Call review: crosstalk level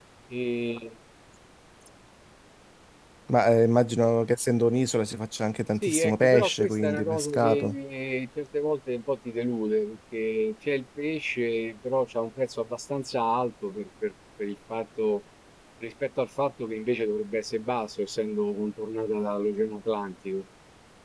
present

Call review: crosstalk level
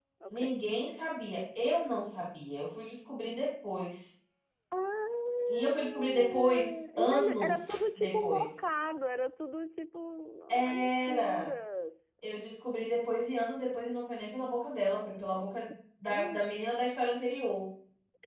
present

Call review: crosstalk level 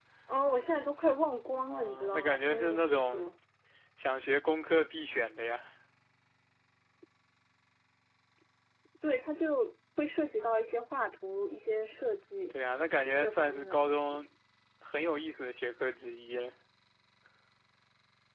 present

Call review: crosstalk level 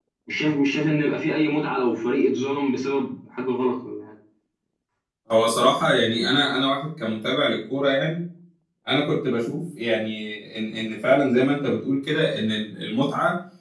none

